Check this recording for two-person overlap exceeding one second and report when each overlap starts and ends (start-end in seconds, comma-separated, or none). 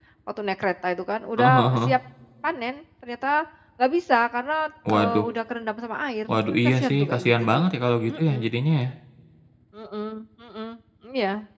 6.3-7.6